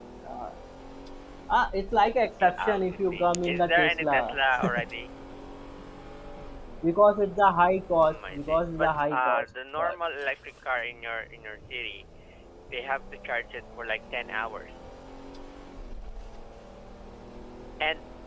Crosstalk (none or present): present